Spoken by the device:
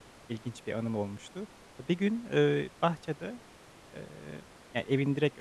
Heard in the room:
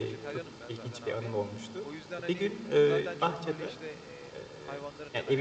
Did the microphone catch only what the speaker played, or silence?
No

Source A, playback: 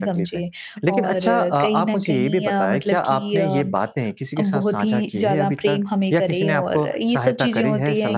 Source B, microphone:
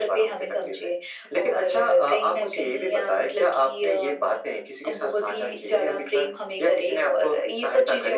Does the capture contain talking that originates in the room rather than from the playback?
No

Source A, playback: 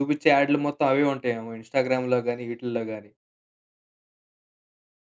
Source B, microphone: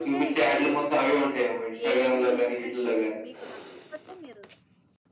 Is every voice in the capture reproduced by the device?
No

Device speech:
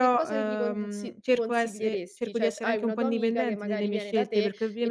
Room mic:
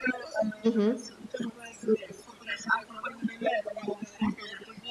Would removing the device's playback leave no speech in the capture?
No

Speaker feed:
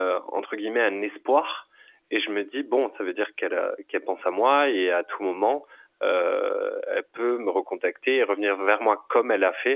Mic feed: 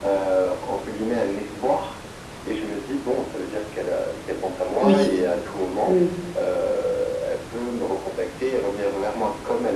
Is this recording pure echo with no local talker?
No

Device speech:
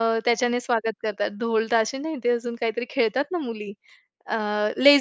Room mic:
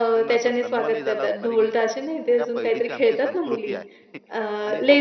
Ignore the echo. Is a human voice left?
Yes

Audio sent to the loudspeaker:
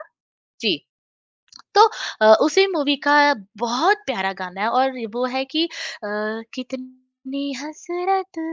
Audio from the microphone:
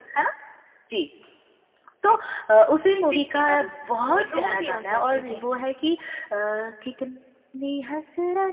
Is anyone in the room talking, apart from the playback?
Yes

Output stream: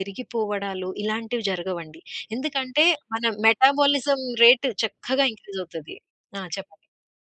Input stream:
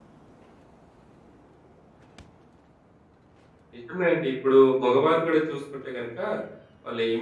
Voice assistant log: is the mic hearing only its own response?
No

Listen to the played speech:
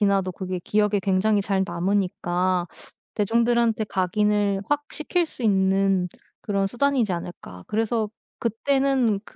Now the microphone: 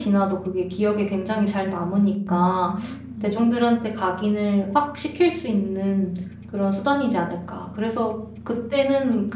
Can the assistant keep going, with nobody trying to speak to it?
No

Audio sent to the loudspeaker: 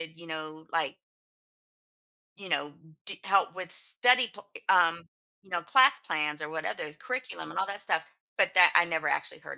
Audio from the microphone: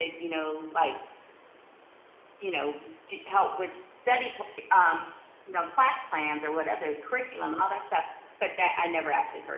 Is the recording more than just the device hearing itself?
No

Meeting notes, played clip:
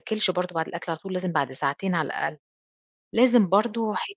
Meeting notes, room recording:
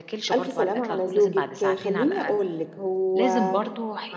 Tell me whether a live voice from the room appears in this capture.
Yes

